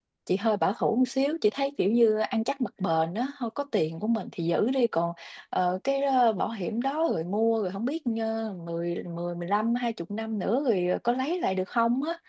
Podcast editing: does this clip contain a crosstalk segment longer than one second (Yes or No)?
No